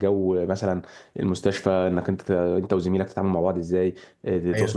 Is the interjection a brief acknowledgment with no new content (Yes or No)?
Yes